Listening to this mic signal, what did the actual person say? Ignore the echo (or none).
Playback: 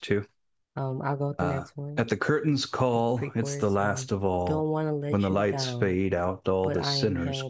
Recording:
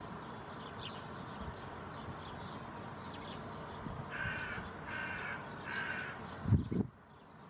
none